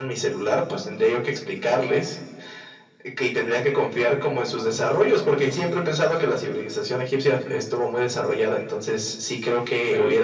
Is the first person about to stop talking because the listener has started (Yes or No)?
No